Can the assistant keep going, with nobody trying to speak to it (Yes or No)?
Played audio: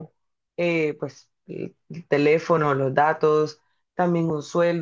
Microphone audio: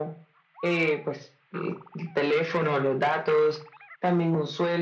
Yes